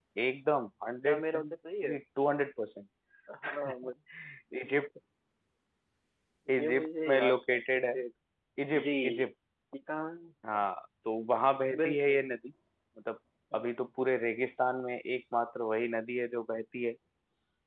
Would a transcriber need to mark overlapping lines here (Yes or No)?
Yes